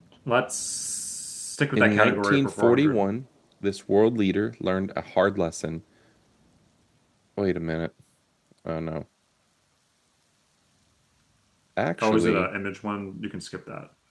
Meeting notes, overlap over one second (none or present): present